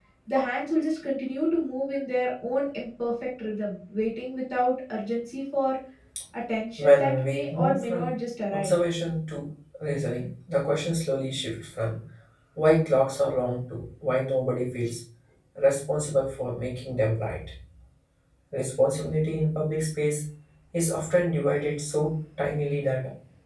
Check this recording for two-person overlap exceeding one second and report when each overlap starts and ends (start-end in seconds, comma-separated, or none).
6.8-8.1